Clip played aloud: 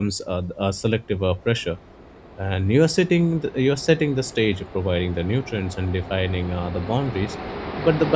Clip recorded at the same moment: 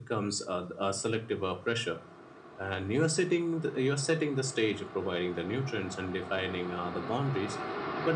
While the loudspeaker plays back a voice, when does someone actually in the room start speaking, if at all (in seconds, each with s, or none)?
none